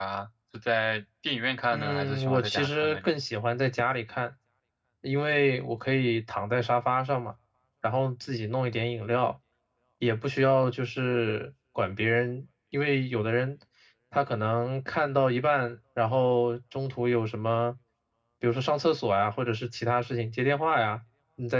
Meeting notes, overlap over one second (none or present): present